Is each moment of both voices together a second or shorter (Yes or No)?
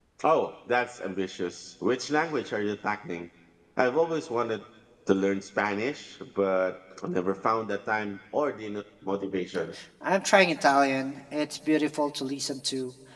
Yes